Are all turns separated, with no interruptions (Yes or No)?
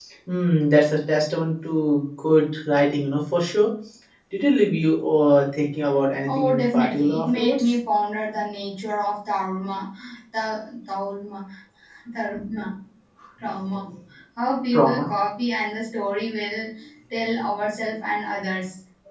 No